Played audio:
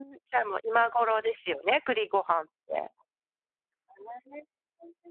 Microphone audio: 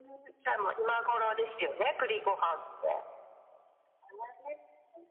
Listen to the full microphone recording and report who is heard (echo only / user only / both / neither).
echo only